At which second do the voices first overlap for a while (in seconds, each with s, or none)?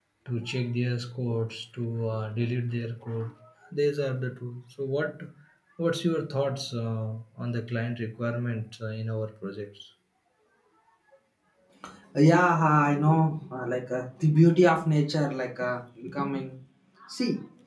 none